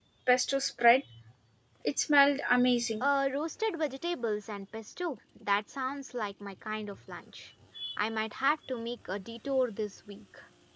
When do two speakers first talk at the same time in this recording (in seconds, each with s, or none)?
none